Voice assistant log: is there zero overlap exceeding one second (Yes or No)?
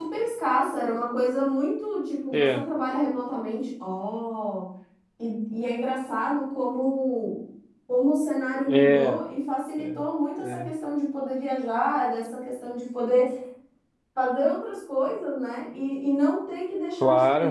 Yes